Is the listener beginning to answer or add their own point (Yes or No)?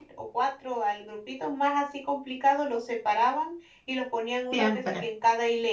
No